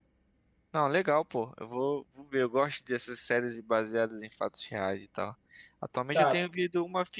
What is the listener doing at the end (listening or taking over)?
listening